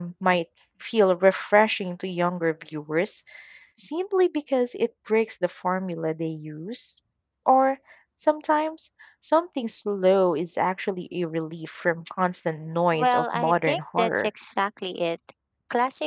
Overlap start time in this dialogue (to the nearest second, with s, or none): 13 s